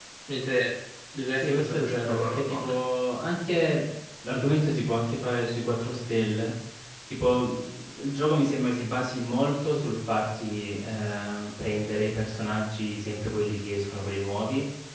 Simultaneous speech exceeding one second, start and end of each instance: 1.4-2.7

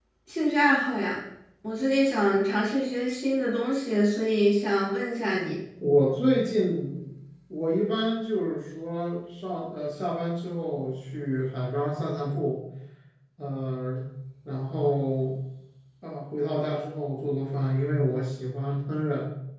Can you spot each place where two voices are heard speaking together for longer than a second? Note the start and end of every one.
none

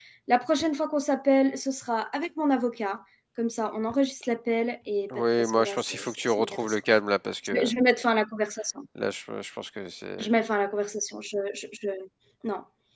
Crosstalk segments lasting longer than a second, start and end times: 5.1-6.8

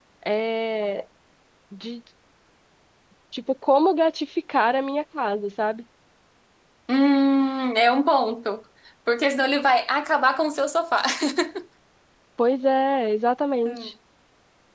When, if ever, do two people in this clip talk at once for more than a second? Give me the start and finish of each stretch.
none

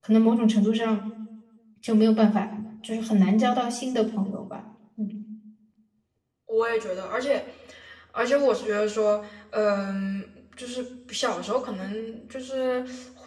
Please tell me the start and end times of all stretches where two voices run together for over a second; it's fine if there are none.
none

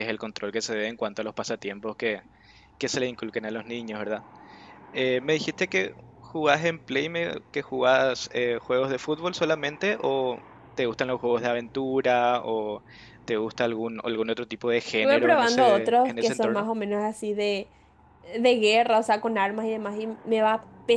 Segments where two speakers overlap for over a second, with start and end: 15.0-16.6

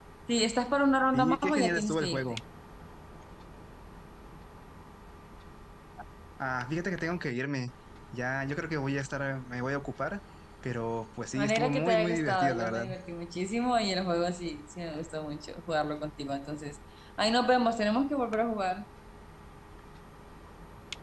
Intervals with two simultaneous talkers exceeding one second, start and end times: 1.1-2.4, 11.3-12.8

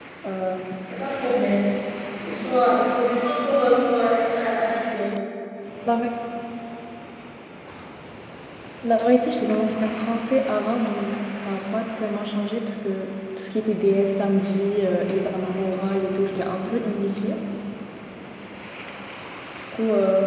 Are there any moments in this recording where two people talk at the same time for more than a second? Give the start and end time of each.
none

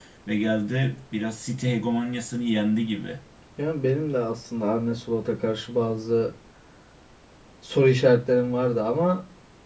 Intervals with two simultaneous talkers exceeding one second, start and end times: none

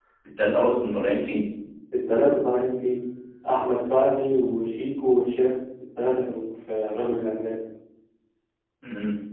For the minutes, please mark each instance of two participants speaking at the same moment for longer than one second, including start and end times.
none

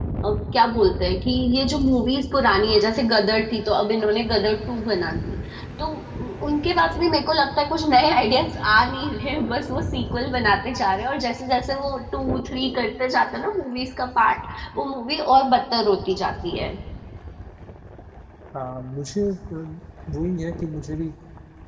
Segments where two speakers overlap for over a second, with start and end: none

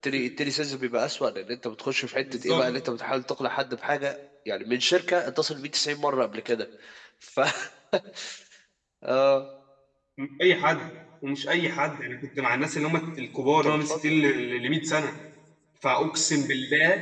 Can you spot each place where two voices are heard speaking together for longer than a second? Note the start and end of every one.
none

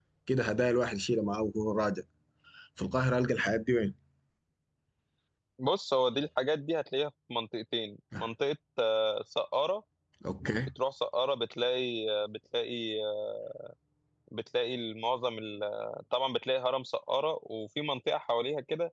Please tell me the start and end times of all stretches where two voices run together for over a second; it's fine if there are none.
none

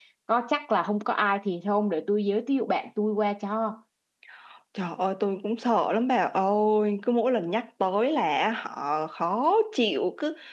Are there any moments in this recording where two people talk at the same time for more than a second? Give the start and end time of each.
none

